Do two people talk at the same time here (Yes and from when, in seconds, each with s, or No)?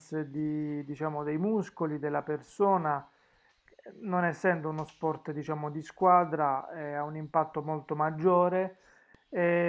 No